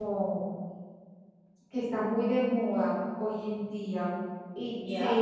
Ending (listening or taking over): taking over